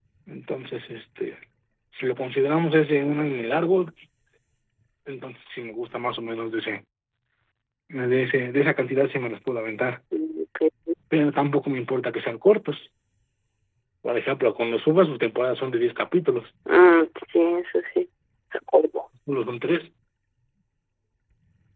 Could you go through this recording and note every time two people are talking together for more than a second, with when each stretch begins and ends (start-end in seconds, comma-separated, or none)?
none